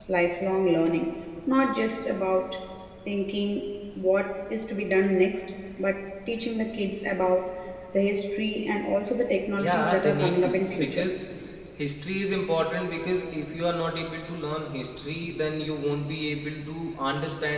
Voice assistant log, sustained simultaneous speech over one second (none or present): present